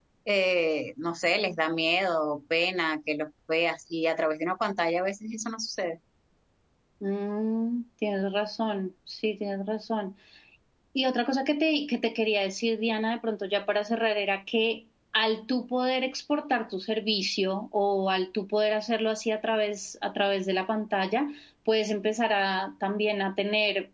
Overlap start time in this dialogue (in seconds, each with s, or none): none